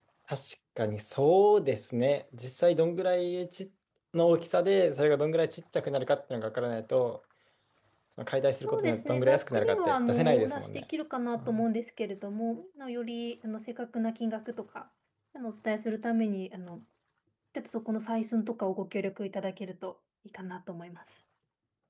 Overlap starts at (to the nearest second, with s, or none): 9 s